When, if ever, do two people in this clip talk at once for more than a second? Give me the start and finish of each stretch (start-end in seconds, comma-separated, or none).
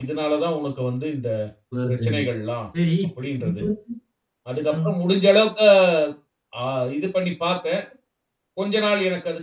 none